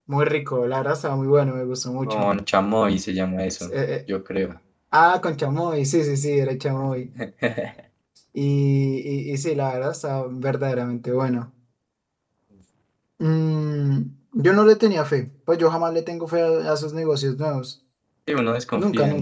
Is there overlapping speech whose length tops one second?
No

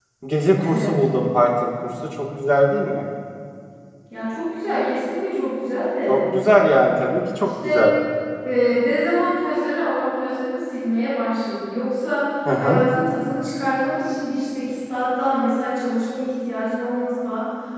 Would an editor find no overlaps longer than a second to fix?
Yes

